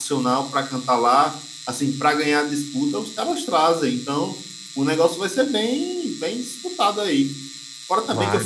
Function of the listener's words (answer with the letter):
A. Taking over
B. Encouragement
B